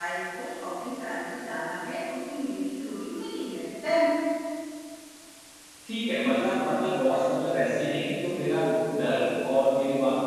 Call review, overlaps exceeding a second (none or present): none